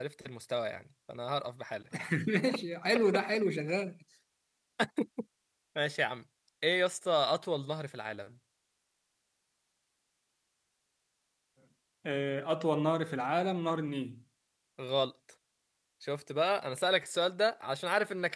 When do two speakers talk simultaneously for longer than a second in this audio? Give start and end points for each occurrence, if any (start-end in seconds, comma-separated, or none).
none